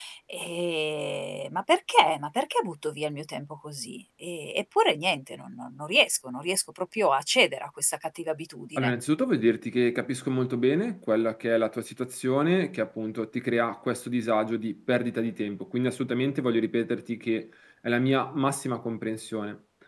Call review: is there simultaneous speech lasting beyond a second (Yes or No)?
No